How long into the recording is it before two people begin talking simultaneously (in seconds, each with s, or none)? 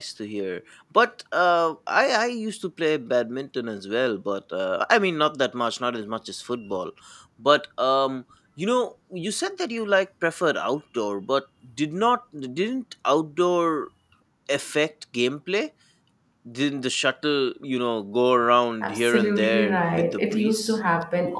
18.8 s